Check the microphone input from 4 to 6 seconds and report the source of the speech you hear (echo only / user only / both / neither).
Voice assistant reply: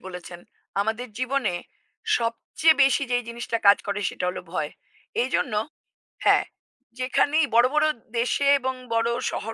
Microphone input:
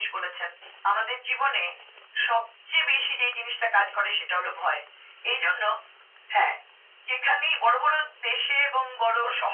echo only